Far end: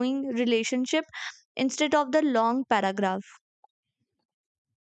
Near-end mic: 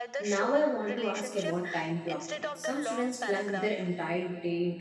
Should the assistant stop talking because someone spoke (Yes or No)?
Yes